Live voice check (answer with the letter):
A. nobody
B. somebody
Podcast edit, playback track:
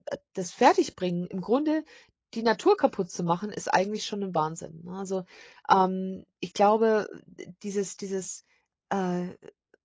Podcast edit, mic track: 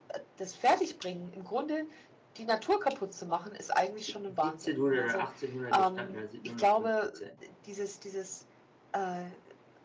B